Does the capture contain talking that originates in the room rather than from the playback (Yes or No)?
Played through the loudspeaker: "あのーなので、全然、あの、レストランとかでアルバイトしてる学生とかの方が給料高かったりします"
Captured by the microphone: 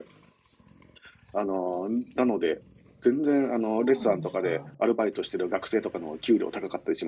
Yes